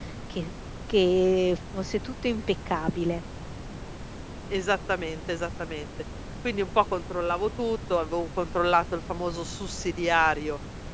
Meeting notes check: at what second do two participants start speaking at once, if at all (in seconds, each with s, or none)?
none